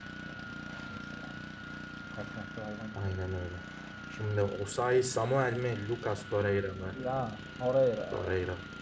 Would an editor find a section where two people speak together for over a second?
No

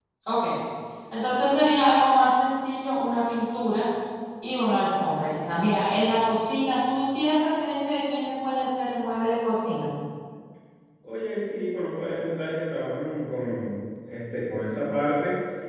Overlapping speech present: No

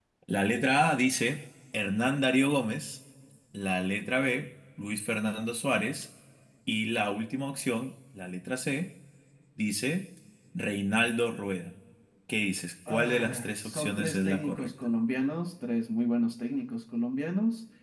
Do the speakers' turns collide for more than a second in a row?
Yes, from 12.9 s

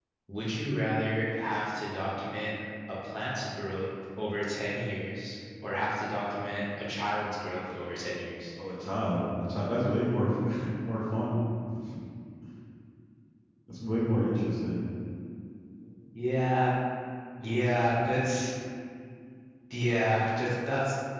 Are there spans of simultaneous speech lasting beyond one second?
No

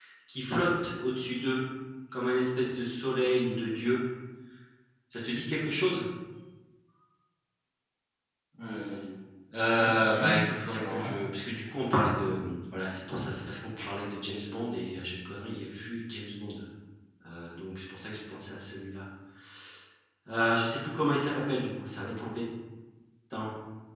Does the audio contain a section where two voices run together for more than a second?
Yes, from 9.8 s

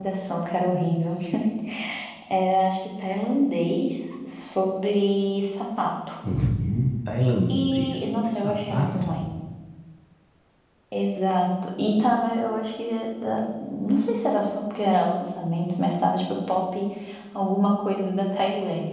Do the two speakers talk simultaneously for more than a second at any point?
Yes, from 7.5 s

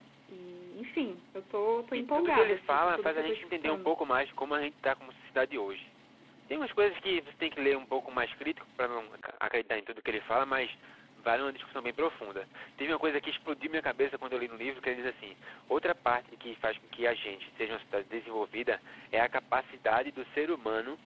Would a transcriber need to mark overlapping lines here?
Yes, from 2.2 s

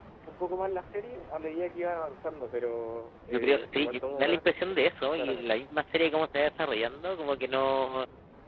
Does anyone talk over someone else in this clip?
Yes, from 3.3 s

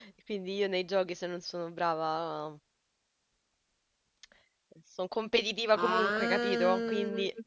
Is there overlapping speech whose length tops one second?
Yes, from 5.8 s

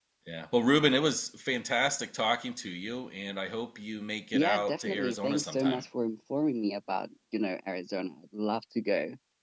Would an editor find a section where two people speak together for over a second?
Yes, from 4.3 s

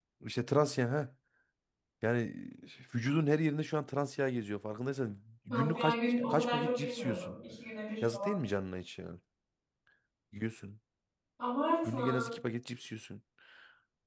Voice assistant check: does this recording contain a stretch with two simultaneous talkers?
Yes, from 5.5 s

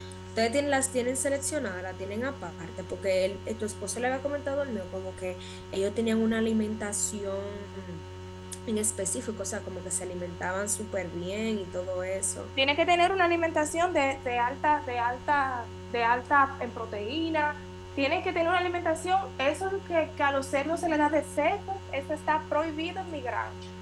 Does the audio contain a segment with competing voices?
No

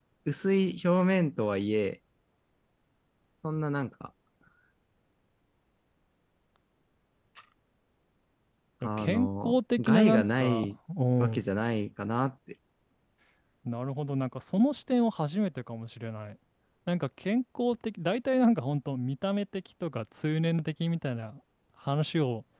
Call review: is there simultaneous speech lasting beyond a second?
Yes, from 8.8 s

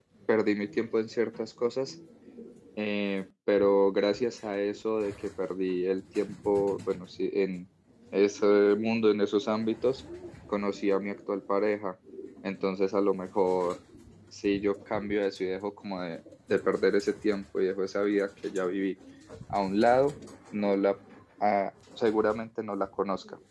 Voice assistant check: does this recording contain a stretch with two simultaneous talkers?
No

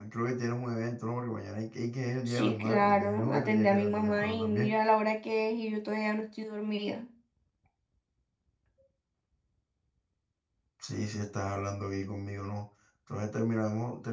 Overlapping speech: Yes, from 2.3 s

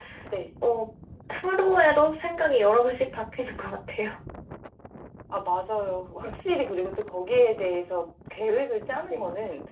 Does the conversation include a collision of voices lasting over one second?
No

